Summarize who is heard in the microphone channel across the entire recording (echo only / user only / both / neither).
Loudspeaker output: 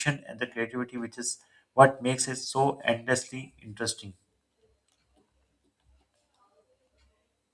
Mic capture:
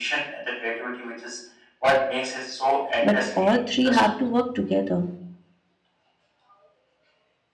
both